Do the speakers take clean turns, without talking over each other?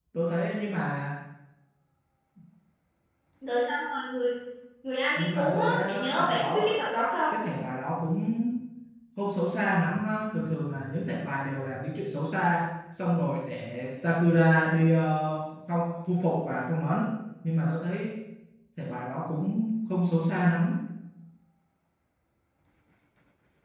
No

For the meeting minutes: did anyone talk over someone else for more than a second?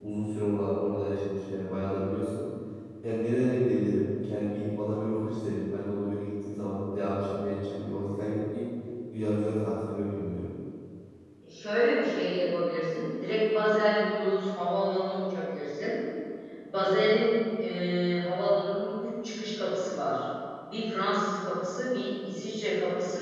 No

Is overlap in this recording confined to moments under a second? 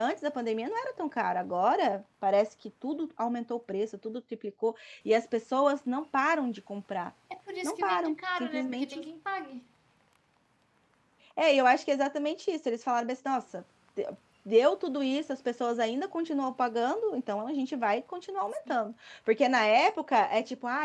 No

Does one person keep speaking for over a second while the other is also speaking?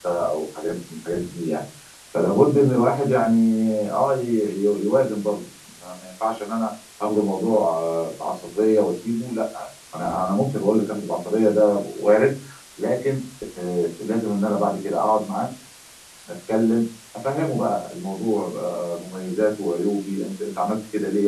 No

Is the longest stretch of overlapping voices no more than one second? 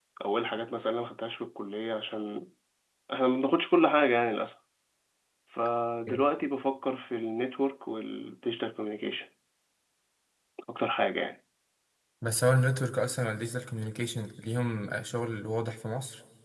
Yes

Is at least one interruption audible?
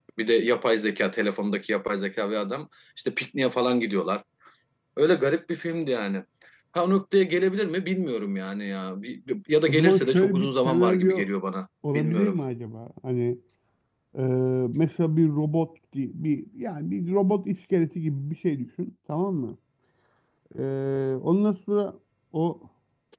Yes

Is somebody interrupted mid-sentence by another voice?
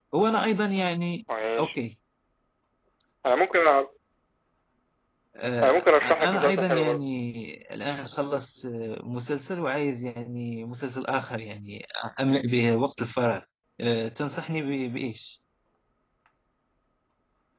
Yes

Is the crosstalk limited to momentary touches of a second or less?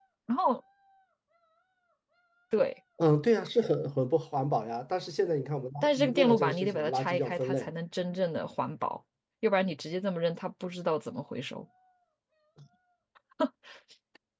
No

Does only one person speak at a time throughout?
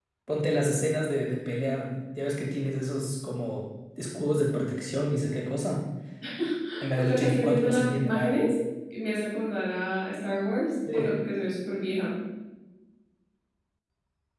No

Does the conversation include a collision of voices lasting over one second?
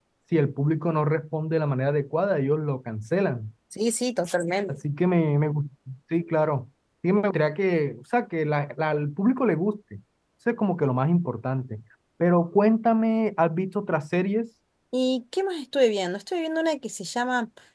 No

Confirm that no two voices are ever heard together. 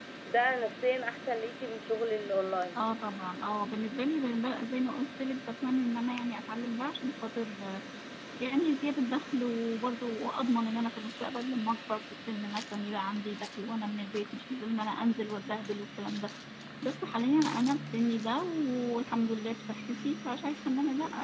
Yes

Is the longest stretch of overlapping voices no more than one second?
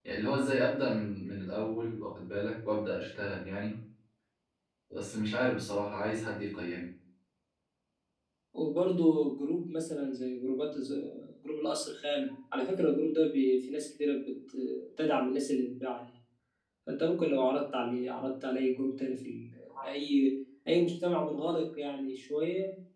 Yes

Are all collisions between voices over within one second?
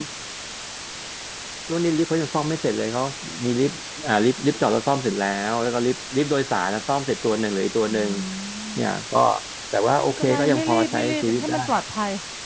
No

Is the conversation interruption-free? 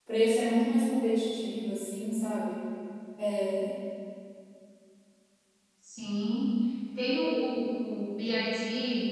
Yes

